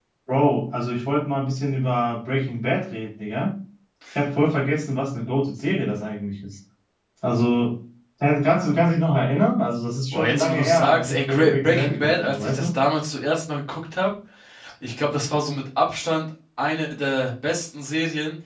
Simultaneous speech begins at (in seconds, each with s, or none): 10.1 s